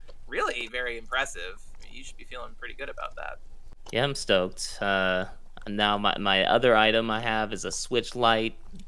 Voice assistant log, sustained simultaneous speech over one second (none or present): none